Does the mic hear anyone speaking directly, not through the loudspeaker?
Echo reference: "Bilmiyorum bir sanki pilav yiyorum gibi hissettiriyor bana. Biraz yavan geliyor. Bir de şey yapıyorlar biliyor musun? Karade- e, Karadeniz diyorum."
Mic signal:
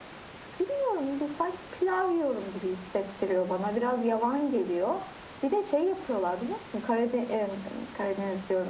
No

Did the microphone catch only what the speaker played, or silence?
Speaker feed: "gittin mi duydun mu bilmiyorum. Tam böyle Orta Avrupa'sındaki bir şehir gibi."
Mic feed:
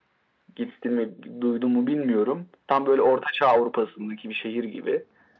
Yes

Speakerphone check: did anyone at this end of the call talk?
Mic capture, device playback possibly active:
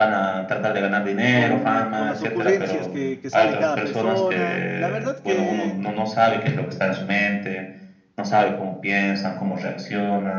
Yes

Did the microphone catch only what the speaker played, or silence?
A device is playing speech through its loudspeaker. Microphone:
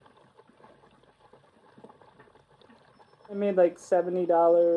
No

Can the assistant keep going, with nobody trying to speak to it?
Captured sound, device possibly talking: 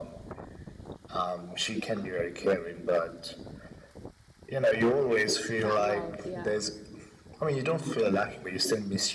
No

